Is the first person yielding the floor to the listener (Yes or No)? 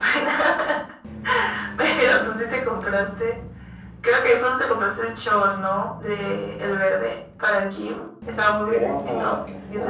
Yes